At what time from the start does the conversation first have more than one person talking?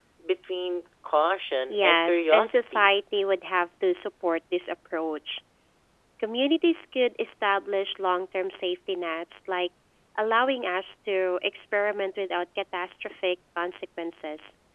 2 s

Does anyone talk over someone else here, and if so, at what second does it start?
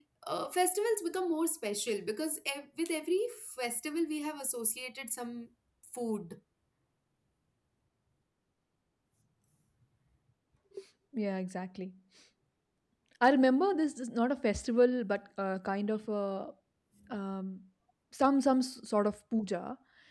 none

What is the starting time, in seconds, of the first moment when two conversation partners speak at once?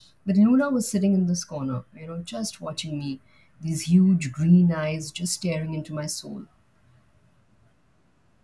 none

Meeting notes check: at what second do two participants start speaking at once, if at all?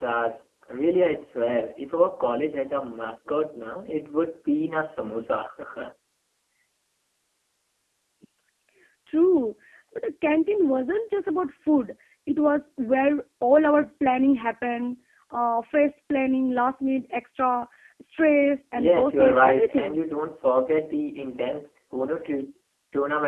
19 s

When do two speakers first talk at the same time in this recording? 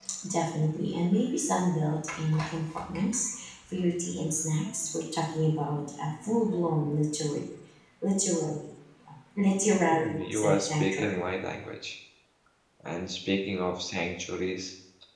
10 s

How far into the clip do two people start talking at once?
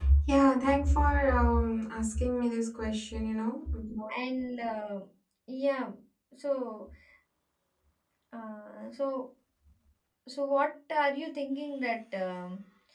none

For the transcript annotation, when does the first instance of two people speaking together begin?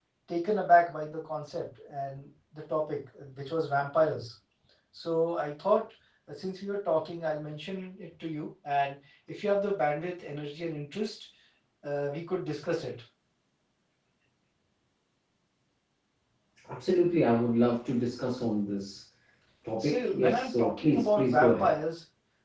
20 s

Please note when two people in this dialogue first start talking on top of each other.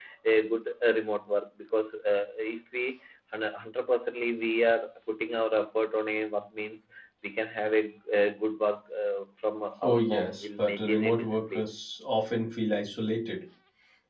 10 s

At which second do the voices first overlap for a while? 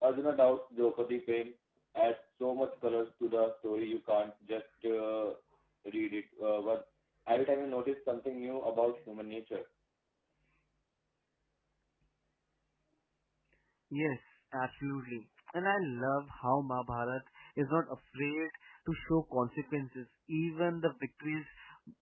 none

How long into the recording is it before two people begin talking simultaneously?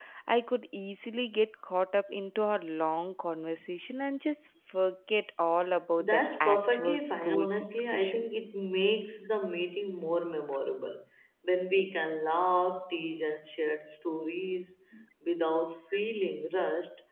6 s

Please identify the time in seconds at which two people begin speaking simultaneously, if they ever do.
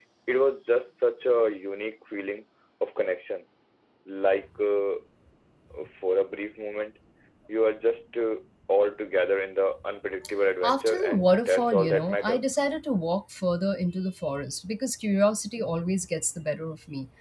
11 s

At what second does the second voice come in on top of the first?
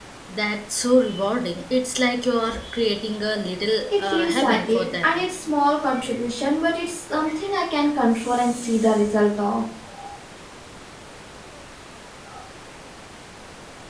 4 s

